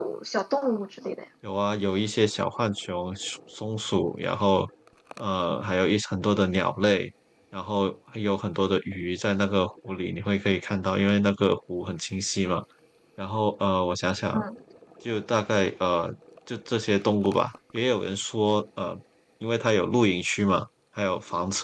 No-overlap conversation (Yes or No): Yes